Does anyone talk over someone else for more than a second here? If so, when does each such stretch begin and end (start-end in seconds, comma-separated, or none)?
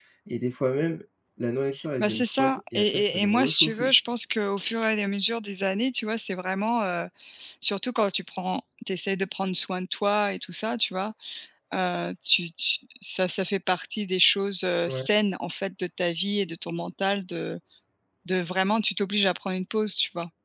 2.0-3.9